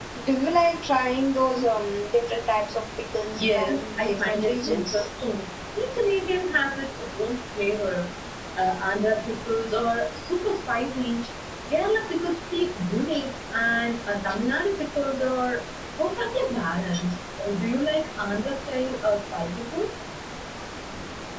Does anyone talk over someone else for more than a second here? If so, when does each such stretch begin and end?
3.4-5.0

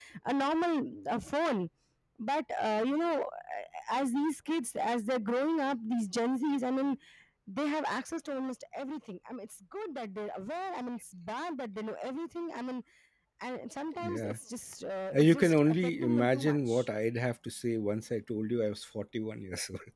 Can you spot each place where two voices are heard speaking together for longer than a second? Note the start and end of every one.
15.1-16.8

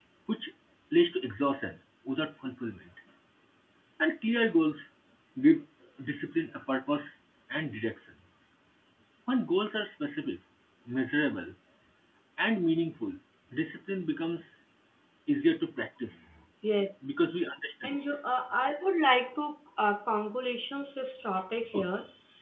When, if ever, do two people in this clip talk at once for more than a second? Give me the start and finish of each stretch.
none

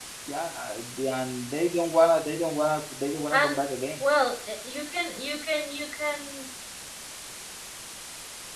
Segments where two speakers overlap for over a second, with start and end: none

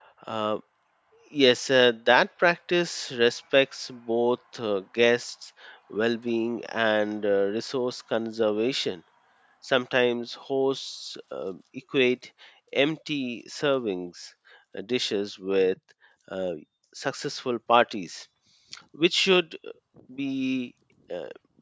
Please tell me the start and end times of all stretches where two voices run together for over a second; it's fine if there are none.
none

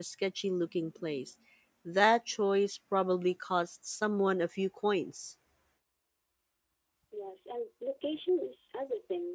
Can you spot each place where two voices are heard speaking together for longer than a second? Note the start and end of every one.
none

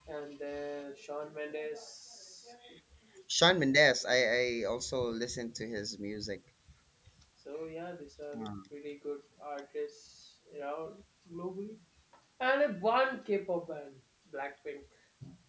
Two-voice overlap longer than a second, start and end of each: none

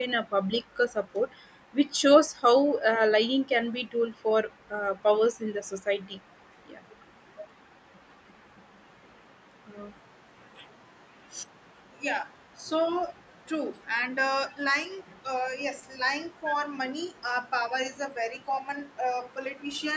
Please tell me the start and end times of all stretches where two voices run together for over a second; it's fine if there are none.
none

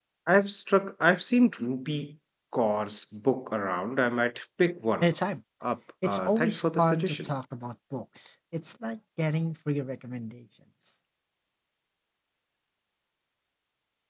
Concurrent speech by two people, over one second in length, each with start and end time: 6.0-7.3

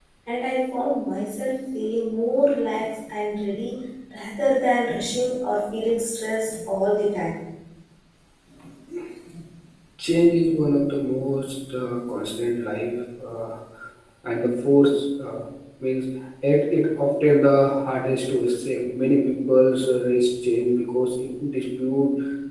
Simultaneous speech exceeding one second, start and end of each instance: none

